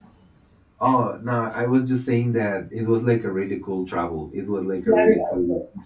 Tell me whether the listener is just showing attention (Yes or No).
No